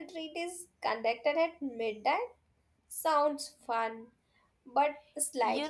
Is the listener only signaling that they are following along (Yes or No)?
No